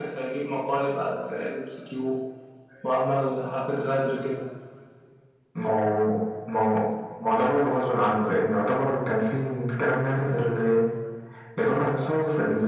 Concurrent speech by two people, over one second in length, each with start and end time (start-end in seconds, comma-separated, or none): none